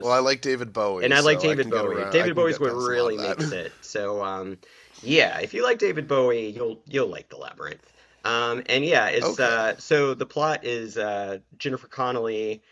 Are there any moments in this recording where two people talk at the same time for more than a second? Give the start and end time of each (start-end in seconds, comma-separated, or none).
1.0-3.6